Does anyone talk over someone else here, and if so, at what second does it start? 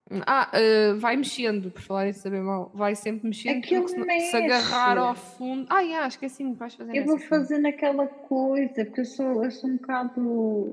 3.5 s

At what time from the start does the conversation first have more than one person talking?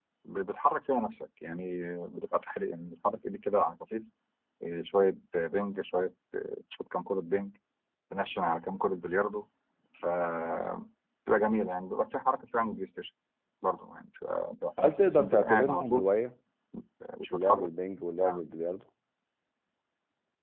14.8 s

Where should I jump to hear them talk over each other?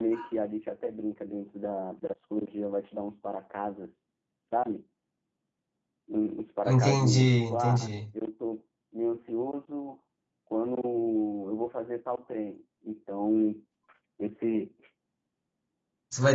6.7 s

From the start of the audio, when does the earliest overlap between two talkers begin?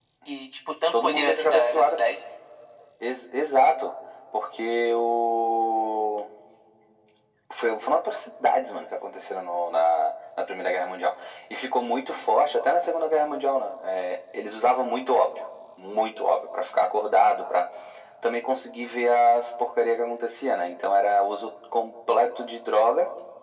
0.9 s

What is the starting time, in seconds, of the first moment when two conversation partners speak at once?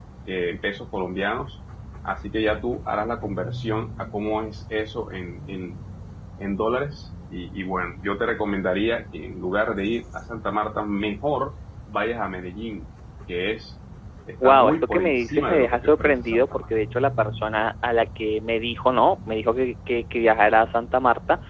14.4 s

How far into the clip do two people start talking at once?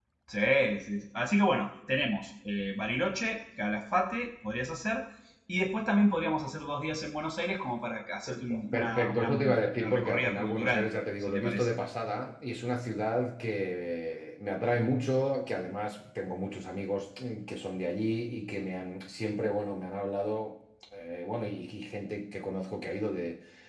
8.3 s

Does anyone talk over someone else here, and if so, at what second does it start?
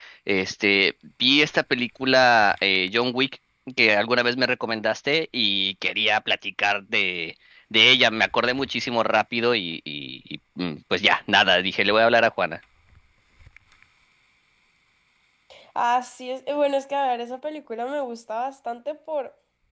none

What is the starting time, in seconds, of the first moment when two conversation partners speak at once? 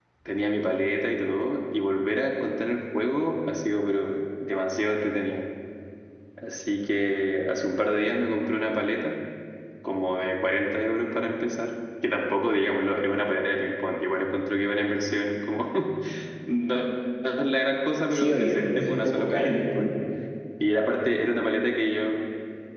18.1 s

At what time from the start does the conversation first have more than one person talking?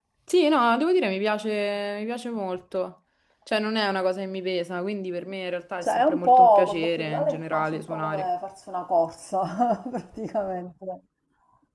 5.8 s

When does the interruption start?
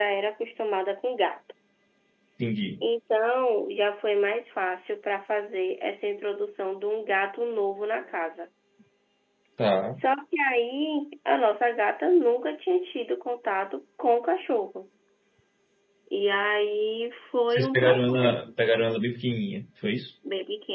17.5 s

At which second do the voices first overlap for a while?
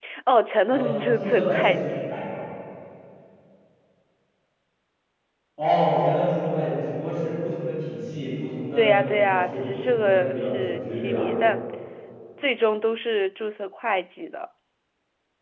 0.7 s

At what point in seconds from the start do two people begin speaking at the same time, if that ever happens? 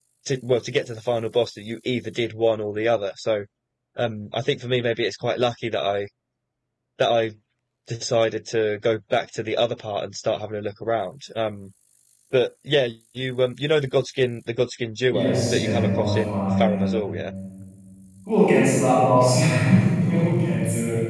15.1 s

